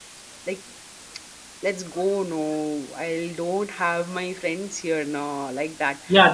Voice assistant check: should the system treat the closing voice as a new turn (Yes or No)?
Yes